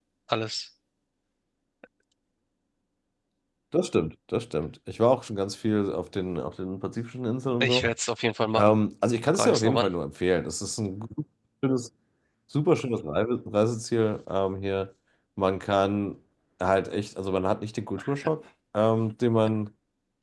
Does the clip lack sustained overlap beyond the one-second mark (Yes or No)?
Yes